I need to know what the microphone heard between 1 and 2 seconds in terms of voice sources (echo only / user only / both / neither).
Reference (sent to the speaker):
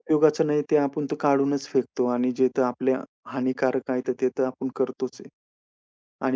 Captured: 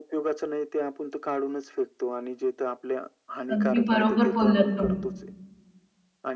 echo only